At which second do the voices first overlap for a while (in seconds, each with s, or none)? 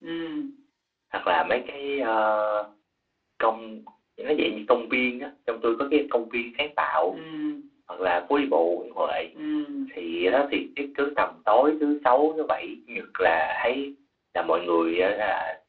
none